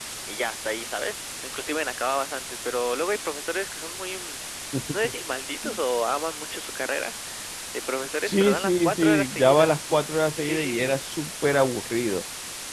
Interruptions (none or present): present